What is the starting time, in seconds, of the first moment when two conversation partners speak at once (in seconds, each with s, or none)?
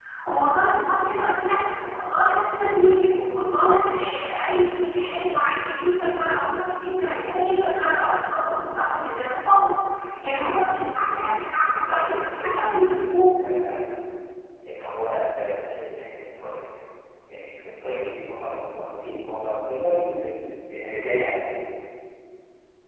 11.8 s